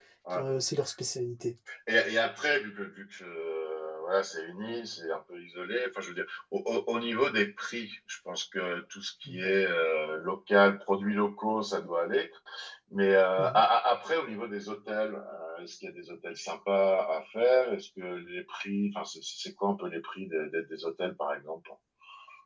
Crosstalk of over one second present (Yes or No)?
No